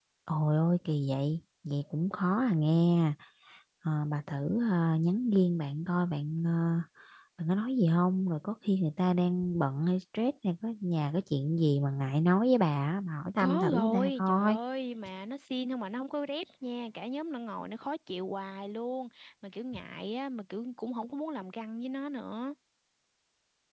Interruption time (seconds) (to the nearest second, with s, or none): 13 s